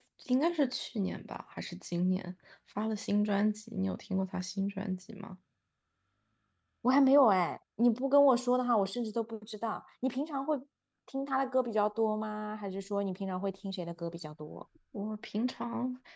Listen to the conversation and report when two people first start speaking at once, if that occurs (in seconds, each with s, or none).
none